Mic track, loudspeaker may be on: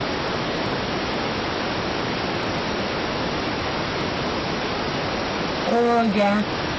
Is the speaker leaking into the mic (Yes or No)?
No